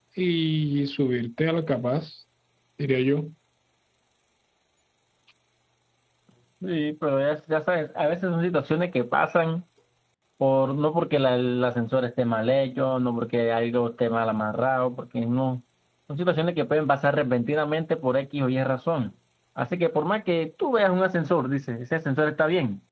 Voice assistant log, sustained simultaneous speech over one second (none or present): none